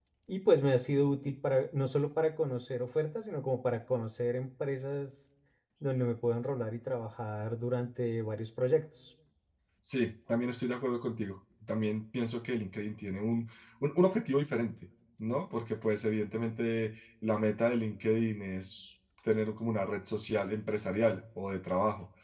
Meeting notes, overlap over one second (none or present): none